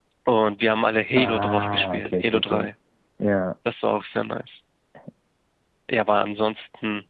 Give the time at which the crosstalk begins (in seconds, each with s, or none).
1.2 s